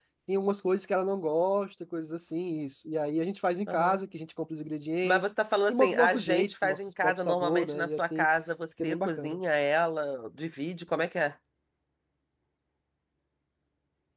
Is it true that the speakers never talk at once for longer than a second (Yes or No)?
No